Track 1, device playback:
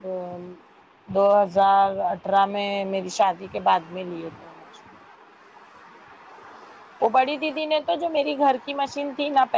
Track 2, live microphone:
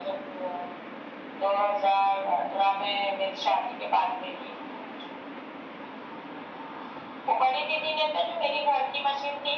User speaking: No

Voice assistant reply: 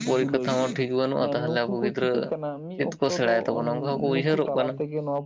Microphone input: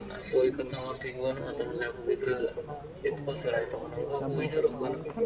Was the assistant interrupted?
Yes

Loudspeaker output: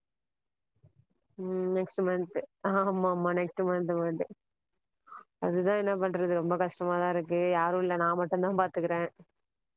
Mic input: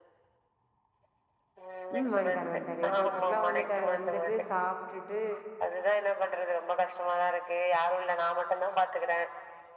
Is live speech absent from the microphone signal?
No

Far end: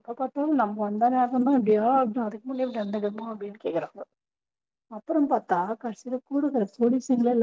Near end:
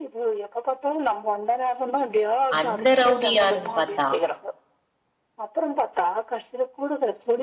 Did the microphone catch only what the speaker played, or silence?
No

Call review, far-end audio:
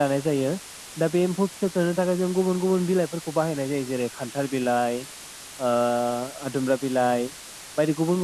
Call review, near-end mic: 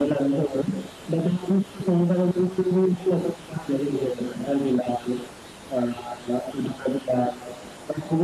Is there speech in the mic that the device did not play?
No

